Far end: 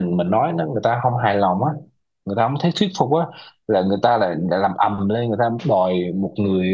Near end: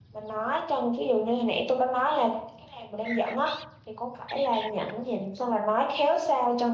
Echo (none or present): none